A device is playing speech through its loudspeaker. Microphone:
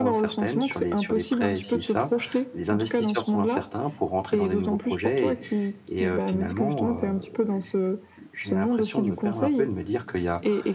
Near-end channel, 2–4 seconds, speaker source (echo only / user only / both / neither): both